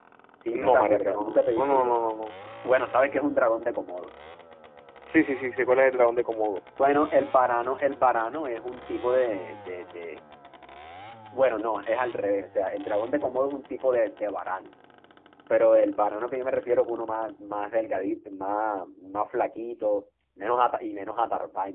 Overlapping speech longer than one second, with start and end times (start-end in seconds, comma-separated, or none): 0.5-1.9